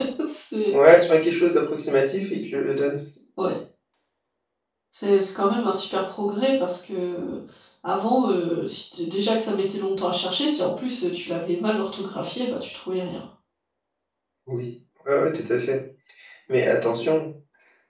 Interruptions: none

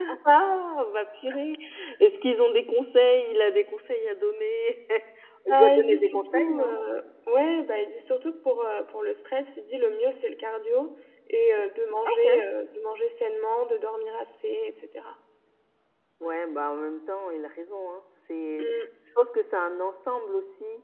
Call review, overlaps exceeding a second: present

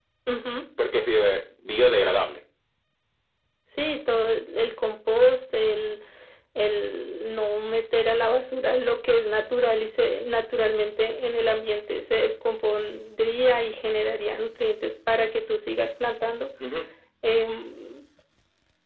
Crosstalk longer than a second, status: none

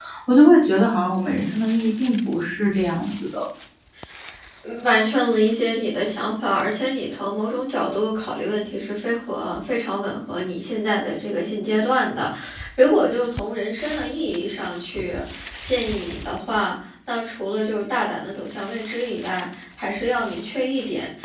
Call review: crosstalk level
none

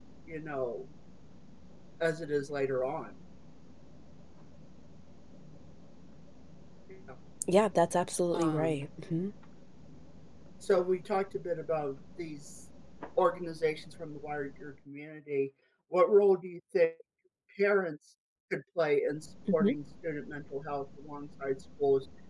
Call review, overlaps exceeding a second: none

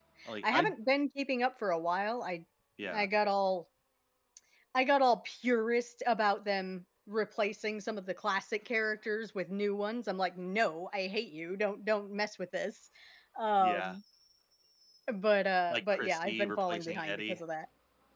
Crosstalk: present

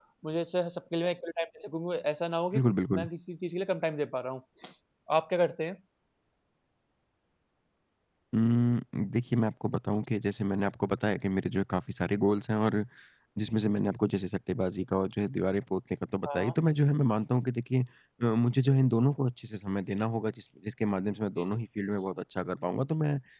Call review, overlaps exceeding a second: none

